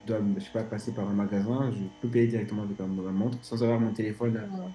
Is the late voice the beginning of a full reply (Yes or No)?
No